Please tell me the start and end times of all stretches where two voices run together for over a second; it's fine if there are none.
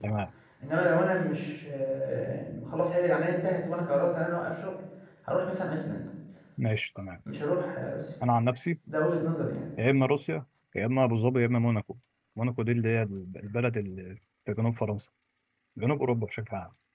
none

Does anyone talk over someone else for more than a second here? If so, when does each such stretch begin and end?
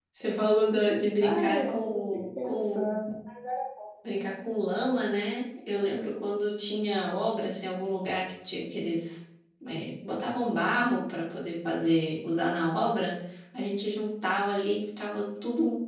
1.2-3.0

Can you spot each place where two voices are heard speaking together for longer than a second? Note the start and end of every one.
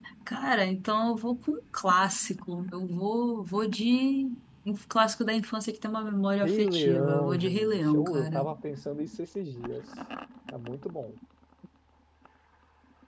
6.4-8.5

